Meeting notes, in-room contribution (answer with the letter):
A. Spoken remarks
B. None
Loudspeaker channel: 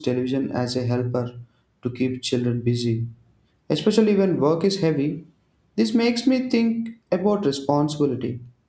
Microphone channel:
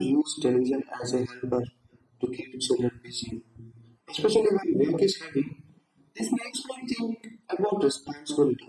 B